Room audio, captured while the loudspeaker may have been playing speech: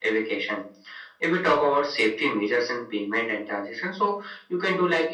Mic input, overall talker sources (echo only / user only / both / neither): echo only